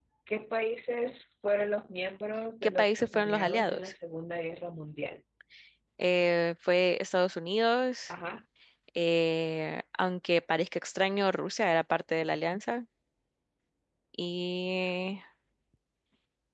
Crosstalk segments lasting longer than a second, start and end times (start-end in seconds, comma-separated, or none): 2.6-3.9